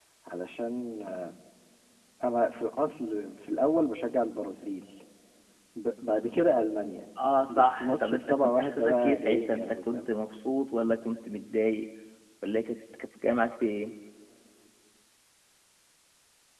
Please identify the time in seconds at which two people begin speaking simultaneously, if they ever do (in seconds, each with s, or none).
7.5 s